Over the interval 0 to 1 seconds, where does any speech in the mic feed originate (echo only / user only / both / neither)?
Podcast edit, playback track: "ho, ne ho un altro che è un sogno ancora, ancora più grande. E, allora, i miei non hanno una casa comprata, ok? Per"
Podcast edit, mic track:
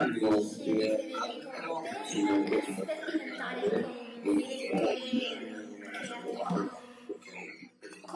both